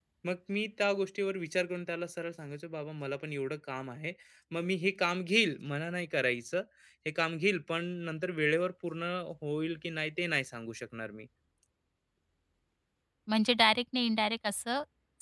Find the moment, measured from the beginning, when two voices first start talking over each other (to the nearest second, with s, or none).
none